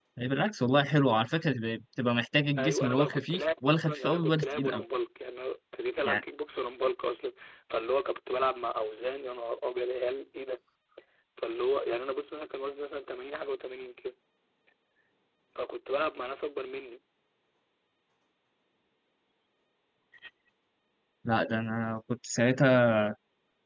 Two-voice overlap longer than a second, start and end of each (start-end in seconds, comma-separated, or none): 2.6-4.8